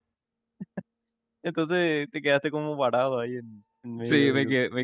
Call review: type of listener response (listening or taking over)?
taking over